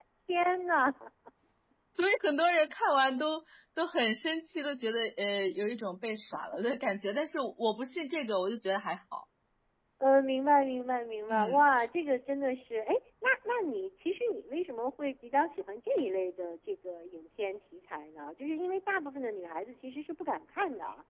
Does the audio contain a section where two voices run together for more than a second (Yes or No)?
No